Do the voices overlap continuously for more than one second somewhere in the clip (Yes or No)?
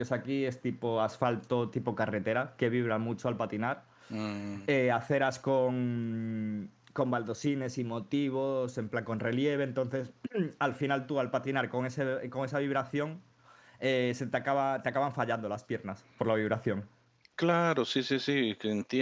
No